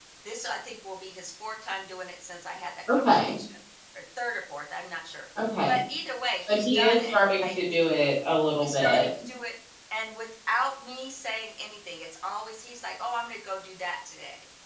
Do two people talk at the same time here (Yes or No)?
Yes